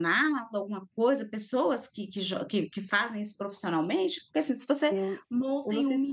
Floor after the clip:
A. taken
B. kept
A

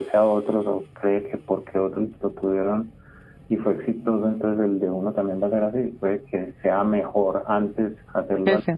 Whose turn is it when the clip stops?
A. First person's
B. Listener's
A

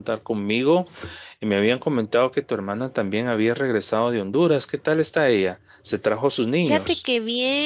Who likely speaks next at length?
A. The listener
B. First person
A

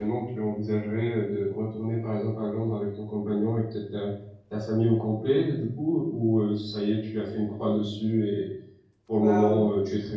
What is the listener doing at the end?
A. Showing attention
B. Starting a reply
A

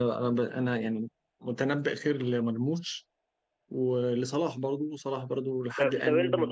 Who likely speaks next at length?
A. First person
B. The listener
B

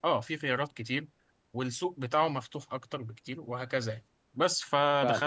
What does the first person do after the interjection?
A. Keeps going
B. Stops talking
A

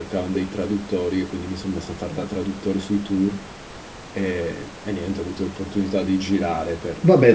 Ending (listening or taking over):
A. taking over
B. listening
A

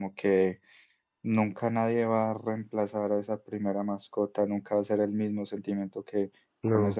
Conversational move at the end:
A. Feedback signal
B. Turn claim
A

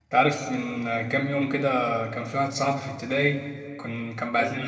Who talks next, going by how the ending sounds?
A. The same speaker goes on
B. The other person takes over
A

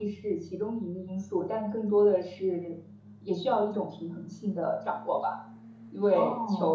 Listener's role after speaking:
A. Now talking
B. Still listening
B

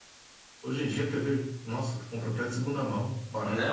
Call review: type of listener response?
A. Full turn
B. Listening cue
A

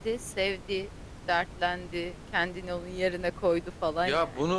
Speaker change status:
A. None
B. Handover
B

